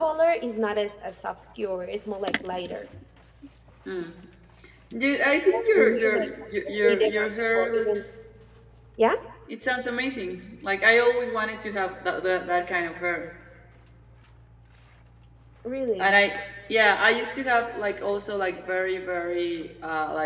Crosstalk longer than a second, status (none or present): present